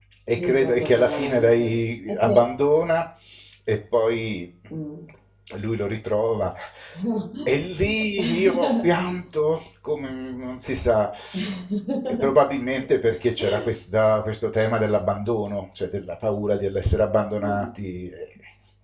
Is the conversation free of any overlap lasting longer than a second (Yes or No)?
No